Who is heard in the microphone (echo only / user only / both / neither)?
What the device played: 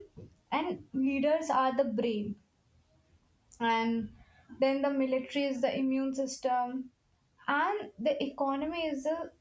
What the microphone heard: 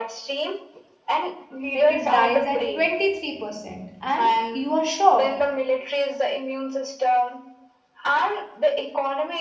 both